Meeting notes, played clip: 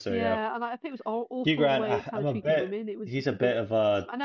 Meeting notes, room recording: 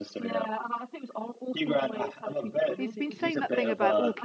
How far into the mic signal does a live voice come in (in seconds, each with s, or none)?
2.8 s